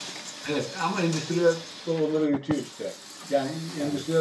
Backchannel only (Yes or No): Yes